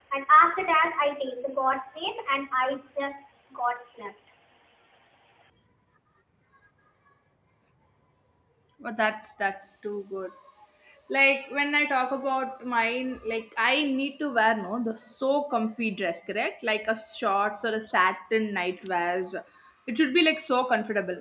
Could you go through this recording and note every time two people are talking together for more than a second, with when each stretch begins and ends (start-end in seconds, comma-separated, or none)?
none